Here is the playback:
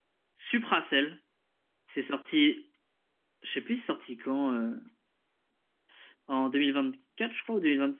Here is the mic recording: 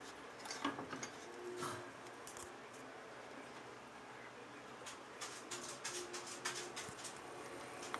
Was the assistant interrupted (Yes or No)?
No